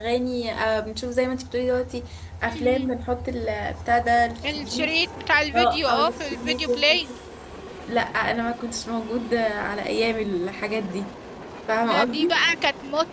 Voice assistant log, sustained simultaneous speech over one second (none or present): present